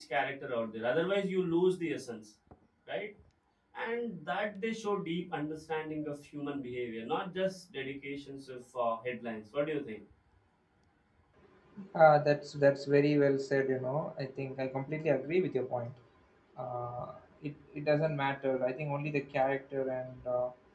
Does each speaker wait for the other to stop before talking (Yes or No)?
Yes